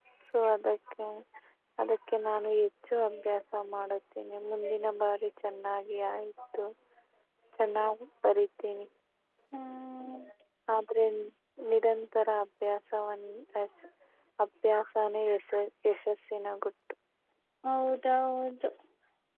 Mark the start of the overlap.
none

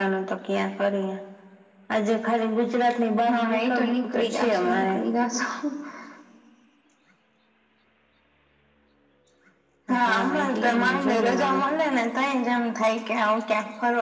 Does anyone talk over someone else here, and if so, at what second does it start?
3.3 s

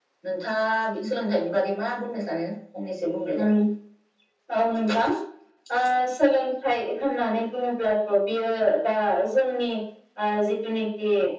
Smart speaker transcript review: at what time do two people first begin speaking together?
none

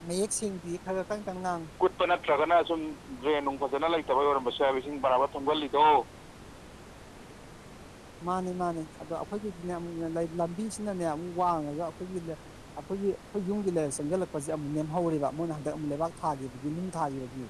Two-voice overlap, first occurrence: none

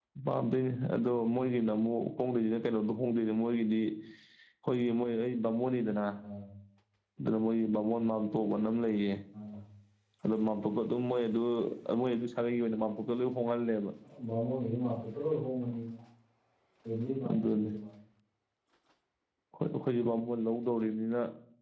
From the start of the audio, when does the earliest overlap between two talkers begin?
none

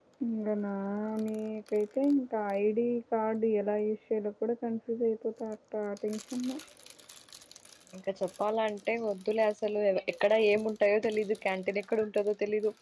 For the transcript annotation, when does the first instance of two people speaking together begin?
none

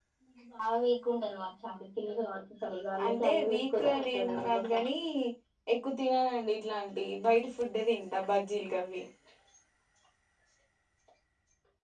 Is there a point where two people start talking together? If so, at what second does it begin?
3.0 s

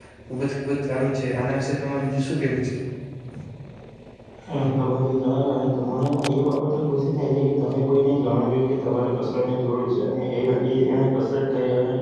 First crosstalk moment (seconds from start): none

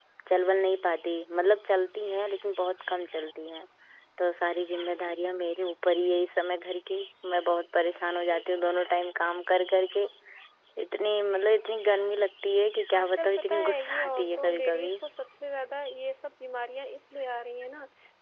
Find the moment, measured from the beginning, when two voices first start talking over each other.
12.9 s

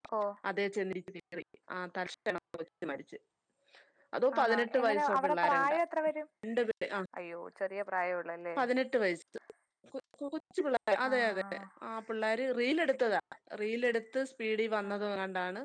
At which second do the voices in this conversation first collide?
4.4 s

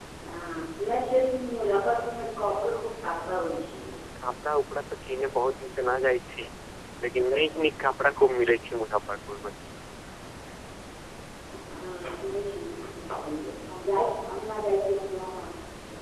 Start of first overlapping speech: none

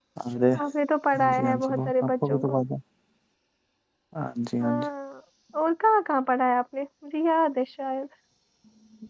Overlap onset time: 1.1 s

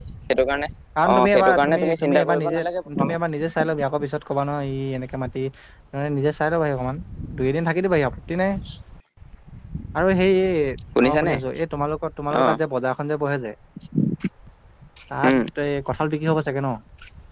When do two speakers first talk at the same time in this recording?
1.1 s

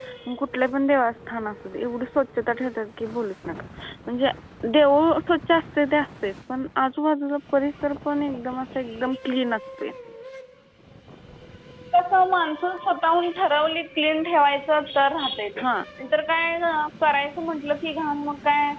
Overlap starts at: none

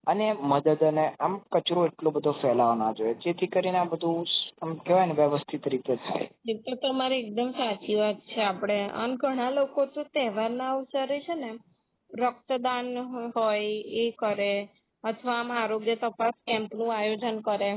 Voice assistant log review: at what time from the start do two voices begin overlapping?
none

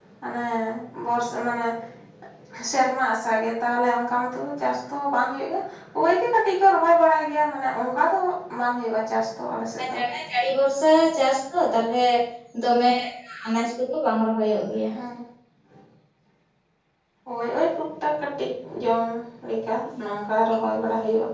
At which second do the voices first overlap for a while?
none

